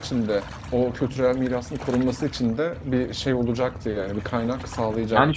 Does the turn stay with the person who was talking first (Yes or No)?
No